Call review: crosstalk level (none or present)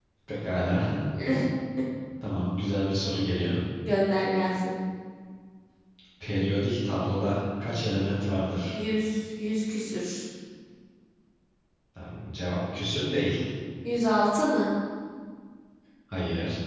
none